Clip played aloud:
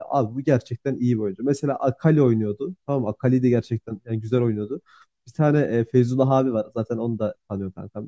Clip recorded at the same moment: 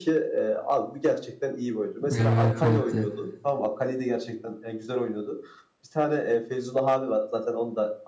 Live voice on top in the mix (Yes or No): Yes